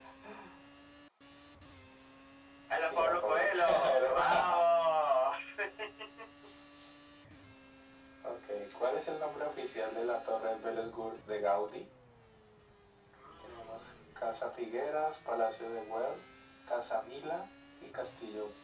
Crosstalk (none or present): present